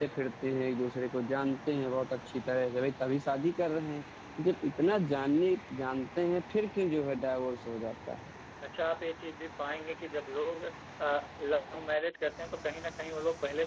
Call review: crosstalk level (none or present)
none